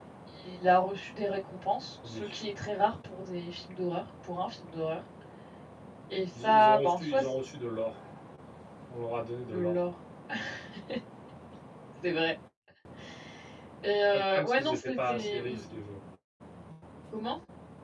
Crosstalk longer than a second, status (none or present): present